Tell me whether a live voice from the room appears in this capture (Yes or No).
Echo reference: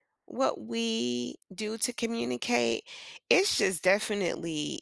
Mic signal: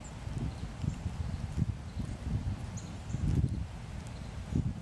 No